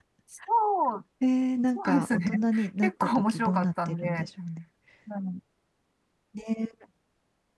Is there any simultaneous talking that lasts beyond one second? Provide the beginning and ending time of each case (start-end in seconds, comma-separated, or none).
1.8-4.1